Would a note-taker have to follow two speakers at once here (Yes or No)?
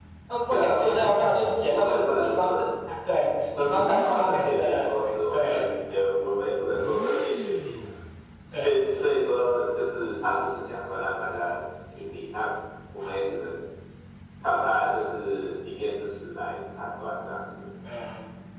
Yes